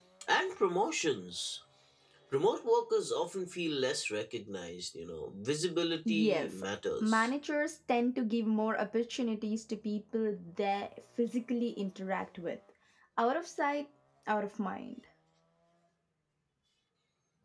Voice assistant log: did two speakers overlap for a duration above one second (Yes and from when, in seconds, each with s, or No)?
No